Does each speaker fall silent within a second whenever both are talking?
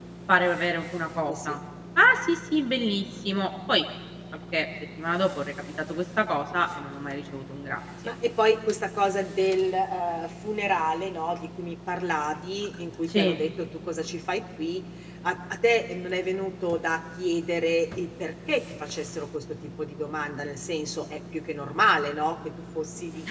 Yes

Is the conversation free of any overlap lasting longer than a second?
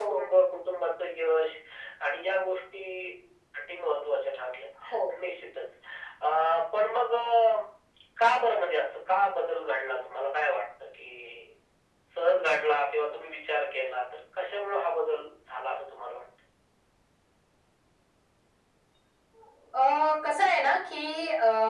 Yes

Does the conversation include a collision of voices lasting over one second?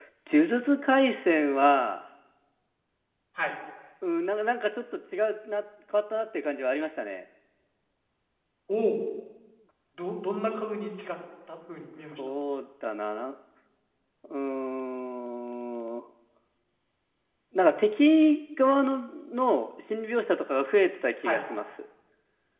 No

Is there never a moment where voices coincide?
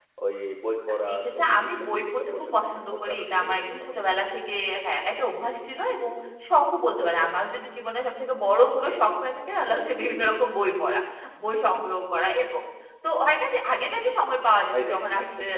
No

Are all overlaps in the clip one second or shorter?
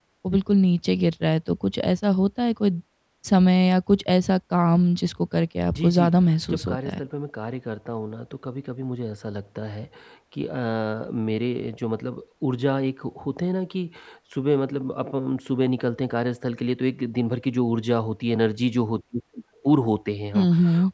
Yes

